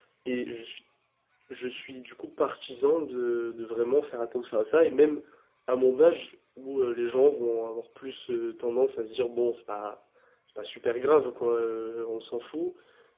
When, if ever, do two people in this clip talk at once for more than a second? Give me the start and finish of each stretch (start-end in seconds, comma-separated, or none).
none